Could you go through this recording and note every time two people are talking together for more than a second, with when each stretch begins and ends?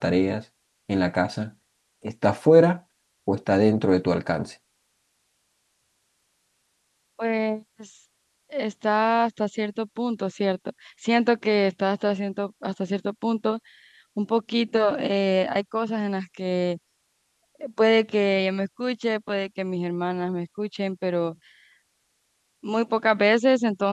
none

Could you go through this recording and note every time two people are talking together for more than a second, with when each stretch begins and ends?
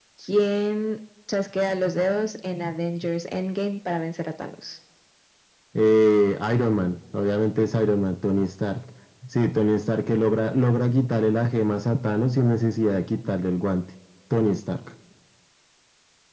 none

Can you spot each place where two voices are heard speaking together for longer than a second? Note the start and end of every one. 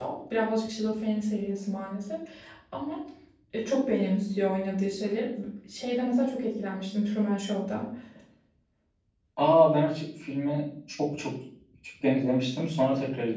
none

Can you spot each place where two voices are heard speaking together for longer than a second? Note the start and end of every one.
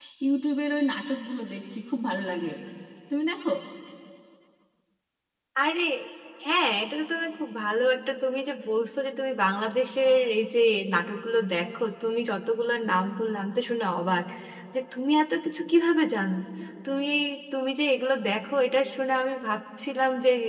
none

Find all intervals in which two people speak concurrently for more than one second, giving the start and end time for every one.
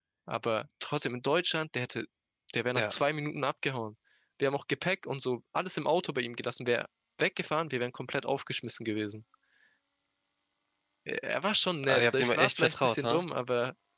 11.9-13.2

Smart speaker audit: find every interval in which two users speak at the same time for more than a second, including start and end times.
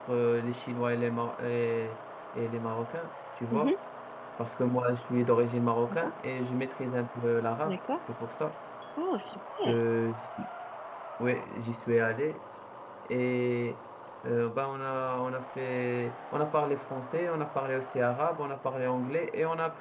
none

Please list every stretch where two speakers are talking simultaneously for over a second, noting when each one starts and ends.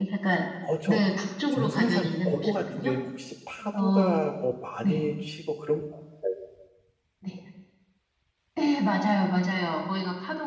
1.5-2.9

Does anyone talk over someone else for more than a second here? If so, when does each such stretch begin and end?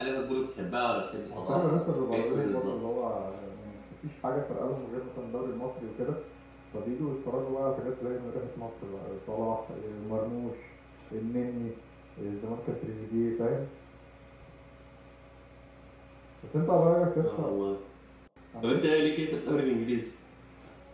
1.3-2.8

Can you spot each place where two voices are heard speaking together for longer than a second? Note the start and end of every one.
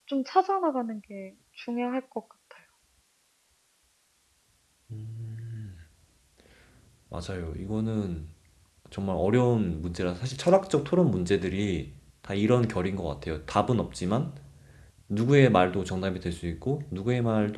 none

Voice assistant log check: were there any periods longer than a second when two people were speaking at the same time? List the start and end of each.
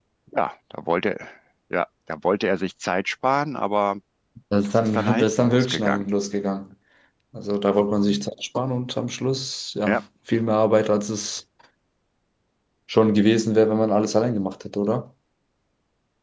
4.6-6.1

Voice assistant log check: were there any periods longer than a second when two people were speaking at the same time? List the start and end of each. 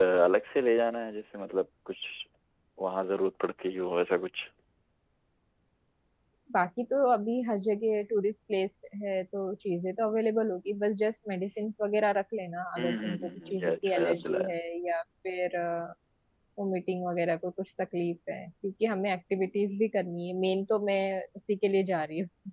12.8-14.5

